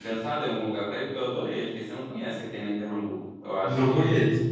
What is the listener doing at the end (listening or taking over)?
taking over